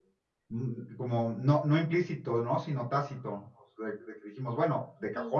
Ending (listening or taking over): listening